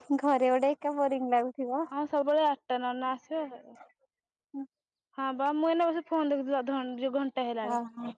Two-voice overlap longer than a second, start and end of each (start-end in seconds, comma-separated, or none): none